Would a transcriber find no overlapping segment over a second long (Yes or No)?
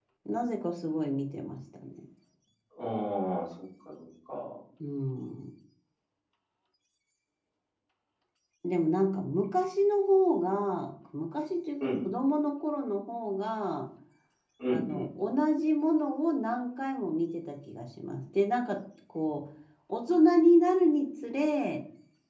Yes